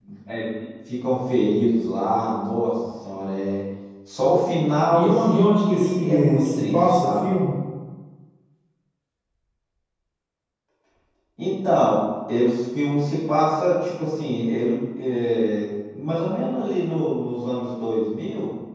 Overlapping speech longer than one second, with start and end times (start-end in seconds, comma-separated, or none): 4.9-7.2